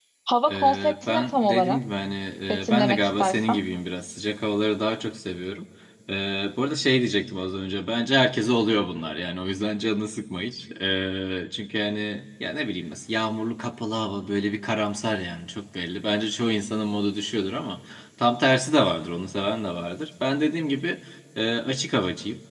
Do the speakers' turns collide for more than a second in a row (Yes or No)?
Yes